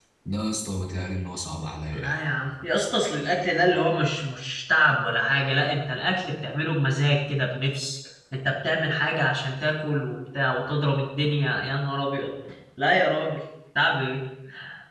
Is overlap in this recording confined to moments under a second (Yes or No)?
Yes